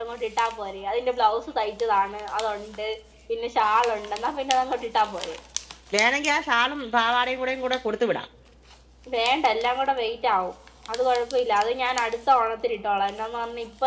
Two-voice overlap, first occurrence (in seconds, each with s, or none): none